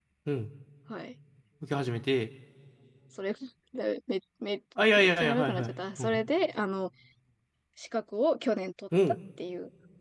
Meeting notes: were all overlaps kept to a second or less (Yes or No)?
No